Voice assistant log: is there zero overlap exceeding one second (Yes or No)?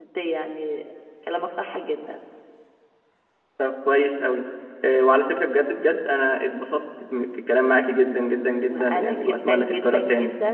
No